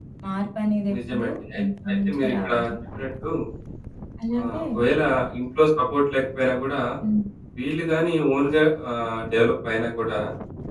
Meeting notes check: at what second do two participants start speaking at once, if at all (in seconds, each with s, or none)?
0.9 s